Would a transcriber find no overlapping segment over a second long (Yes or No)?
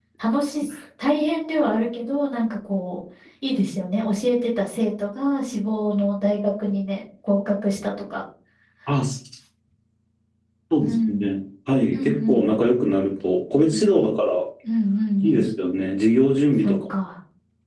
Yes